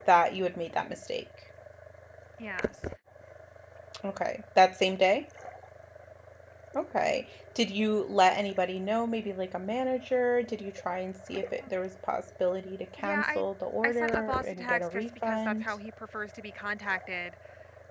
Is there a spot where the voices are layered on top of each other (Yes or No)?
Yes